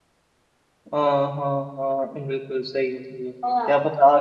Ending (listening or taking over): listening